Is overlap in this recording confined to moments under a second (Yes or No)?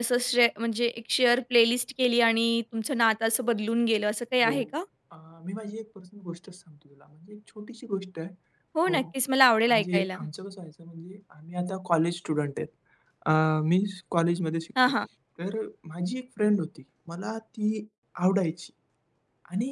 Yes